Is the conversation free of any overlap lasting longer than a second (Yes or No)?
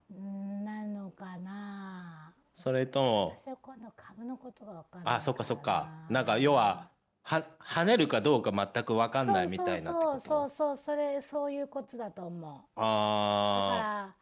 No